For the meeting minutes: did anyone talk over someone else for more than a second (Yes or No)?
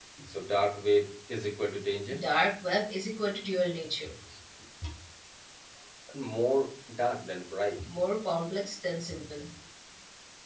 No